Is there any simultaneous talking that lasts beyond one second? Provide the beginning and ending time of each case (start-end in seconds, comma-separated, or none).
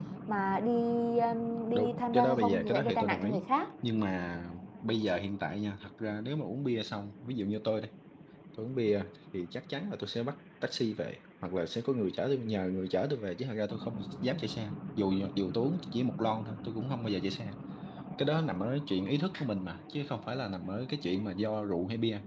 1.7-3.4